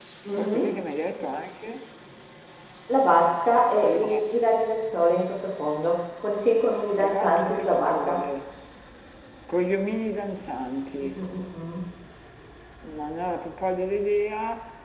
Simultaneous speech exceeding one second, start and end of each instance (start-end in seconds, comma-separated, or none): 7.0-8.2